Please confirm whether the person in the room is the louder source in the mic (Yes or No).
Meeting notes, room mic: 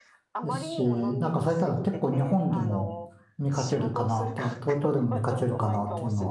Yes